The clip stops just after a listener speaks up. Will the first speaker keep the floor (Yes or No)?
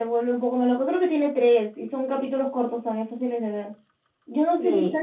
Yes